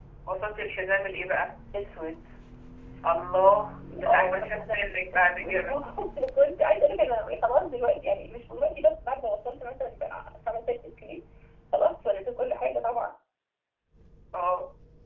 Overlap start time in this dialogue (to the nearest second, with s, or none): 4 s